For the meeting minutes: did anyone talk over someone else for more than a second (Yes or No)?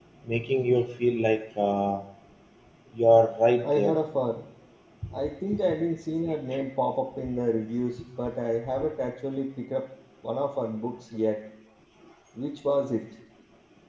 No